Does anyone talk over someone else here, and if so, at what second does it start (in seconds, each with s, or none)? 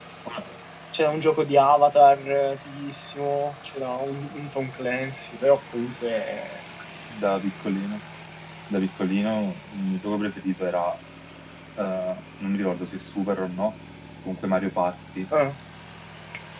none